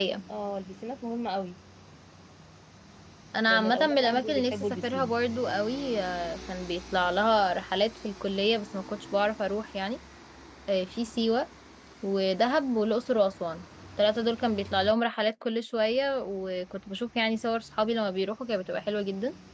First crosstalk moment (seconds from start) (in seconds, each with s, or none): 3.5 s